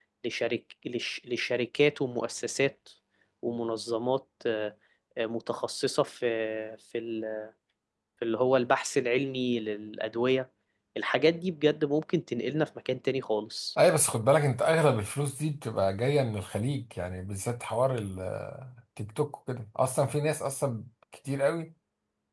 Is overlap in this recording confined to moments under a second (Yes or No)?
Yes